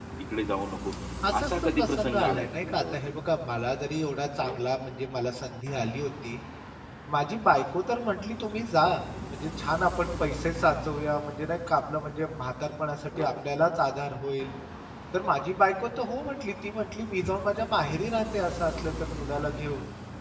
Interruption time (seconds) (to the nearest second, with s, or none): 1 s